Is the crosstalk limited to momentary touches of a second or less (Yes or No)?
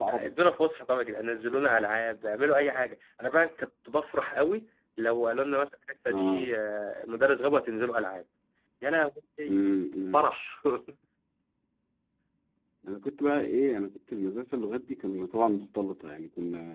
Yes